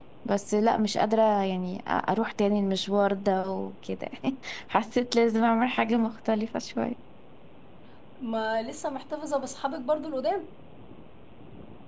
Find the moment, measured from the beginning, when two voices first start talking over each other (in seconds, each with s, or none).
none